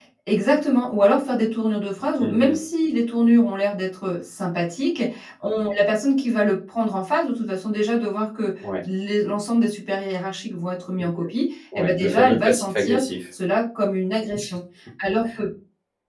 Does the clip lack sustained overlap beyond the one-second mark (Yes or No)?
No